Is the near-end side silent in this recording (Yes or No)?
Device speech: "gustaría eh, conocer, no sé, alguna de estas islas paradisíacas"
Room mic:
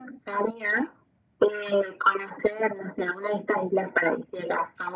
Yes